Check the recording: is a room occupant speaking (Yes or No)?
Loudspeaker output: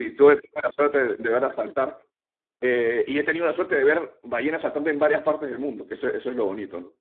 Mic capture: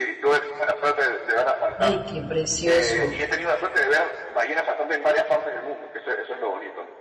Yes